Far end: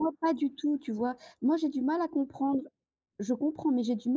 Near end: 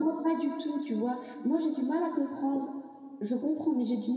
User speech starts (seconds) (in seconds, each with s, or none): none